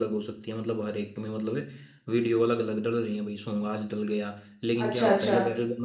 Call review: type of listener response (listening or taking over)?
listening